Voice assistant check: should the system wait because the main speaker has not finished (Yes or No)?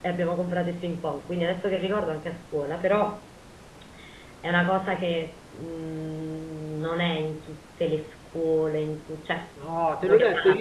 No